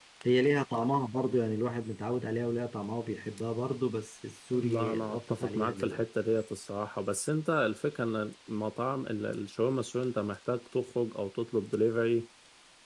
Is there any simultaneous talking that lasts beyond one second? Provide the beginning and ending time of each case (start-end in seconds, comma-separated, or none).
4.5-6.0